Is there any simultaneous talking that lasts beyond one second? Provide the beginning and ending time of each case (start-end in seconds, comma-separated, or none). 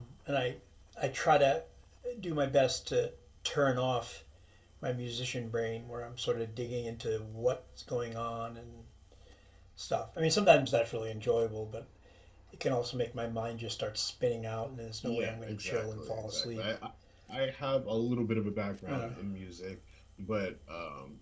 15.0-16.7